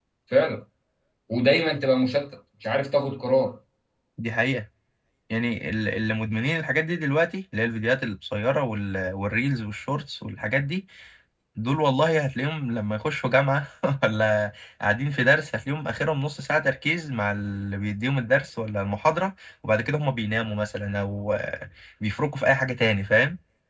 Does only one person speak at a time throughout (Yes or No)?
Yes